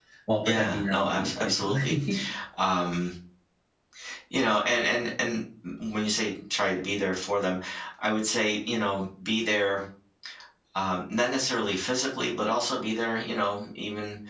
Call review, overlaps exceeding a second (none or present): present